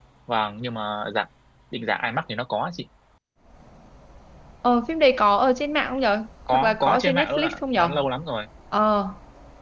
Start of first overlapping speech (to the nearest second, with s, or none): 6 s